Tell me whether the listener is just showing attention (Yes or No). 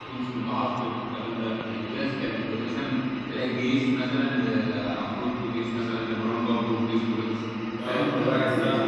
No